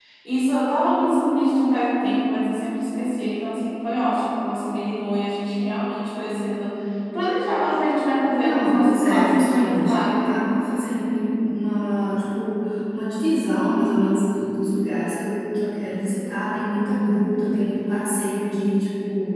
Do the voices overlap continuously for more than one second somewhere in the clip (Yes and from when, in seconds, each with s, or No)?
Yes, from 8.4 s